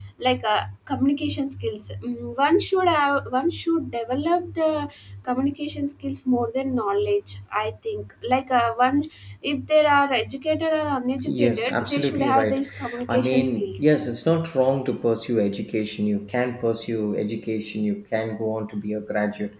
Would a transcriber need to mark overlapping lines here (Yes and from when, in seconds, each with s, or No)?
Yes, from 11.2 s